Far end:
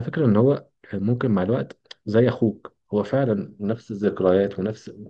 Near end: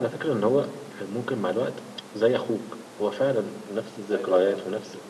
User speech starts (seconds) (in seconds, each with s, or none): 4.1 s